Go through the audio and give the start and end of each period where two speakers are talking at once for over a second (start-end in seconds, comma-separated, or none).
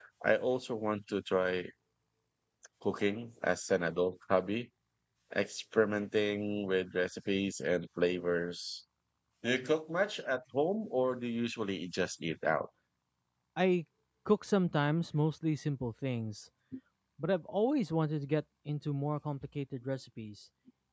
none